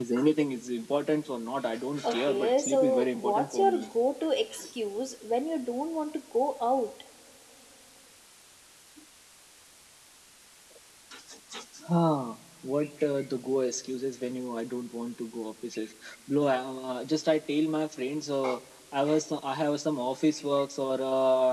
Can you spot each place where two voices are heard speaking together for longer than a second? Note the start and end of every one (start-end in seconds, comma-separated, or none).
2.0-3.8